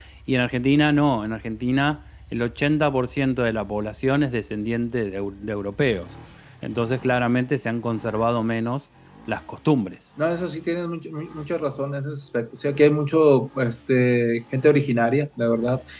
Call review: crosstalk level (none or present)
none